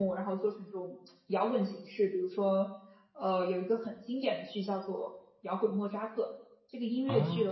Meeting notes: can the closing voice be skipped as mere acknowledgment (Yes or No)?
Yes